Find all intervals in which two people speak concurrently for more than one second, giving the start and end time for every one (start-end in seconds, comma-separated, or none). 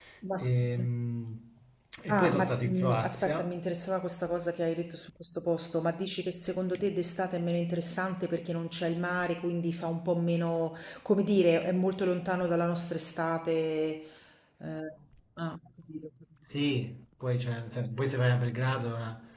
2.1-3.4